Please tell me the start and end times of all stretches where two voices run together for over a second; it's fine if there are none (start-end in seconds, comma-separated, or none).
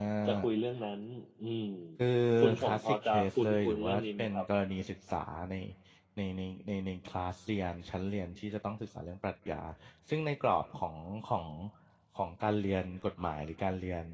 2.6-4.5